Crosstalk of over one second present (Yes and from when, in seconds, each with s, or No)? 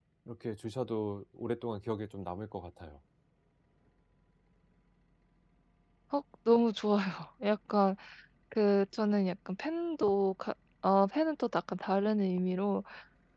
No